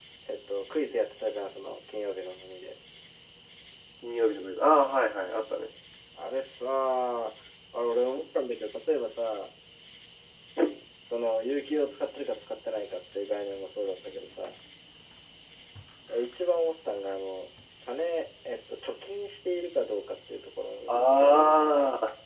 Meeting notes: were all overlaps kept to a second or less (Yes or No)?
Yes